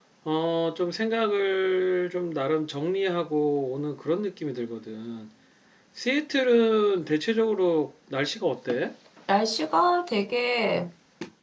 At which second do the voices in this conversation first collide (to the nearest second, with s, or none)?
none